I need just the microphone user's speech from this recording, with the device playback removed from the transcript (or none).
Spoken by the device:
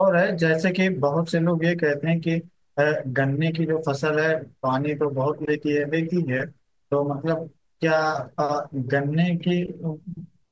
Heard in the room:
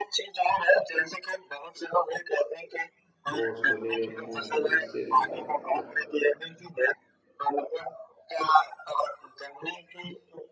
वो उसको ले लेता है तो इससे मतलब अ-